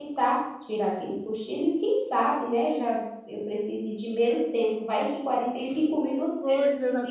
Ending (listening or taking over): taking over